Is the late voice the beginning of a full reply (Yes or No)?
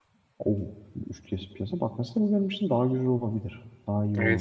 Yes